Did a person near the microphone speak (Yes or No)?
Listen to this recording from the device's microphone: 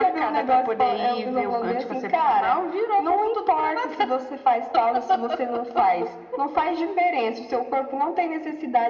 No